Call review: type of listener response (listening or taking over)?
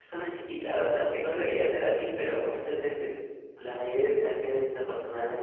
listening